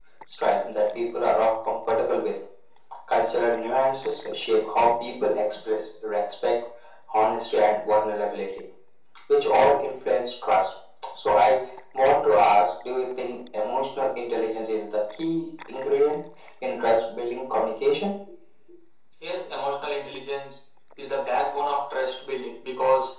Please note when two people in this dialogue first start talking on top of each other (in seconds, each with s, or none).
none